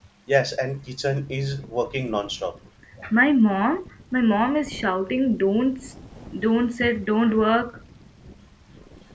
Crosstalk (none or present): none